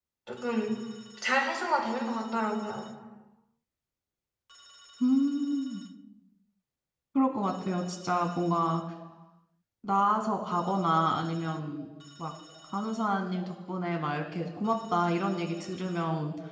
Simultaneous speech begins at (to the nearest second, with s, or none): none